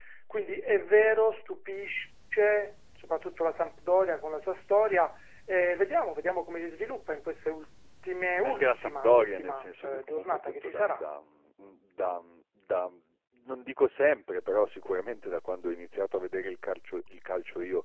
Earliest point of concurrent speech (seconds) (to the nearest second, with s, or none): 8 s